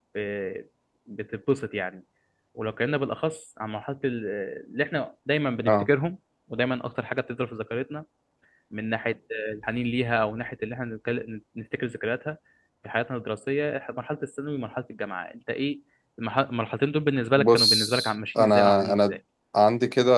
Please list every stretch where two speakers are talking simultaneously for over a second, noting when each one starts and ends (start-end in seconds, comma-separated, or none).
17.4-19.2